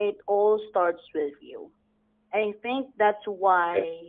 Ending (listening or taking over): listening